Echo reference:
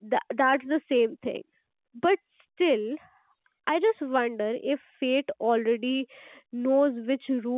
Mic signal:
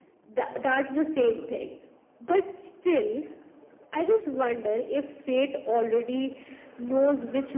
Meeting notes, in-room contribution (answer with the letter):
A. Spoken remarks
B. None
B